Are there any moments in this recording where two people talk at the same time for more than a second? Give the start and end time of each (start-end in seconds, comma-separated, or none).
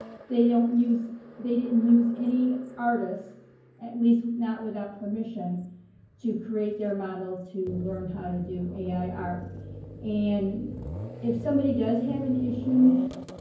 none